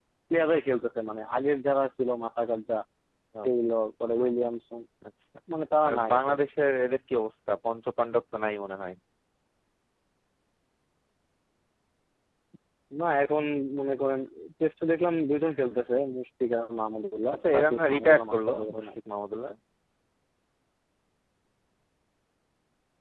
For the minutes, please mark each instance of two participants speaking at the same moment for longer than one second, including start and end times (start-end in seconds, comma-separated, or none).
17.3-18.9